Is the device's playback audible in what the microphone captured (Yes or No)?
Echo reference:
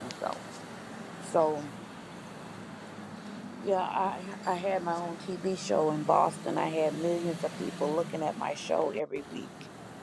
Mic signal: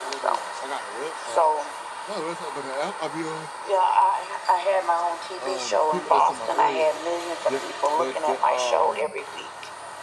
Yes